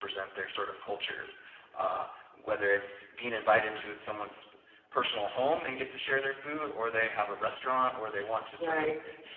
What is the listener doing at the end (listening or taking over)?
listening